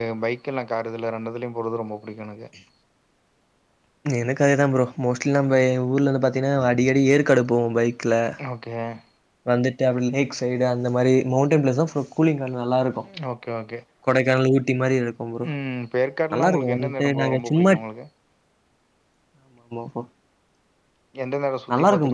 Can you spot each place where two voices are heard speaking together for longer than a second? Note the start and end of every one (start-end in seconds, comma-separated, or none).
16.3-17.7